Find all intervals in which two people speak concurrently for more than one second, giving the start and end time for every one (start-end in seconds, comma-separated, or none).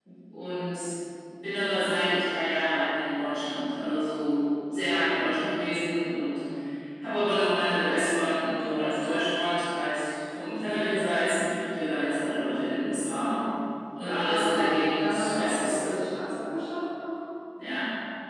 14.2-15.9